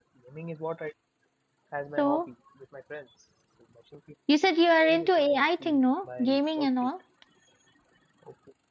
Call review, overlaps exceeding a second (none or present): present